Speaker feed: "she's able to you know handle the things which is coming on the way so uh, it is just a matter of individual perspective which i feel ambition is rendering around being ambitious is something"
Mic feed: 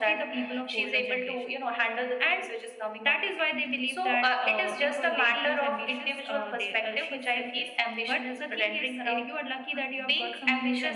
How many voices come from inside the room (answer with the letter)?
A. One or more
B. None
A